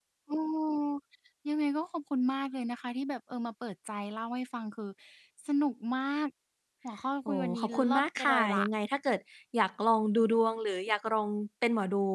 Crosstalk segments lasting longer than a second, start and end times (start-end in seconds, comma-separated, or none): 7.2-8.6